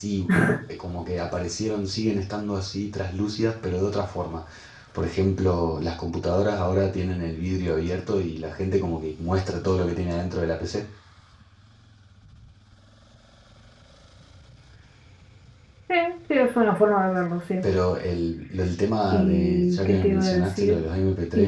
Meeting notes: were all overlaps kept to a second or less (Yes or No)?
No